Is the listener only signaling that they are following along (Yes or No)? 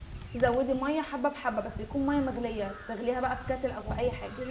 No